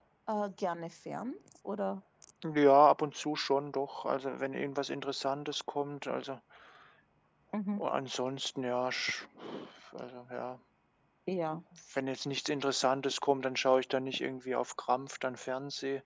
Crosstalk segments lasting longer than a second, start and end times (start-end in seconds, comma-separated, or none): none